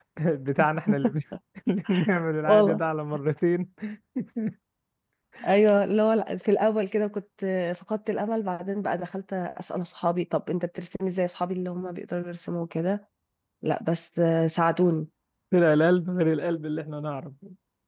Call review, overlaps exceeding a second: none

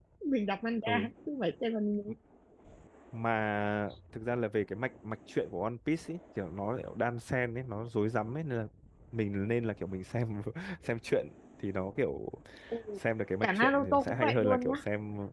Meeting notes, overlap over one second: present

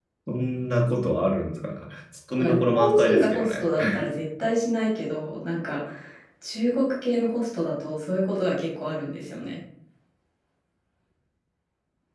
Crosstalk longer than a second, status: present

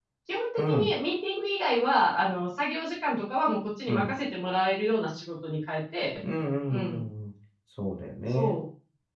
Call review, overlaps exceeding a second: none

